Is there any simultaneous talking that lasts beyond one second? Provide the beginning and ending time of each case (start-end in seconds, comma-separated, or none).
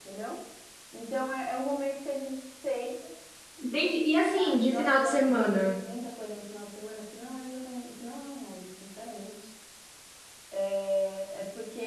4.3-5.7